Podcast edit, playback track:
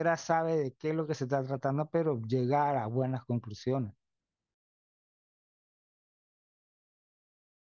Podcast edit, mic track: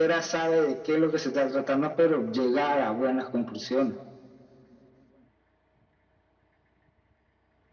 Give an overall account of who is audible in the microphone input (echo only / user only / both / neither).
echo only